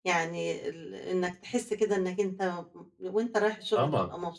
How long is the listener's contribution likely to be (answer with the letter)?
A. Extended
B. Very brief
A